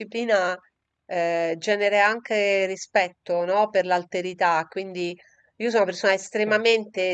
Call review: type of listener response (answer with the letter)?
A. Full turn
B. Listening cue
B